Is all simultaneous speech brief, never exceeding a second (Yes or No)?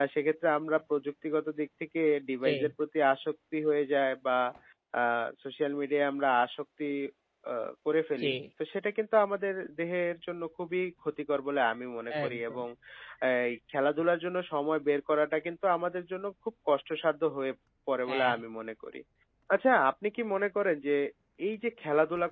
Yes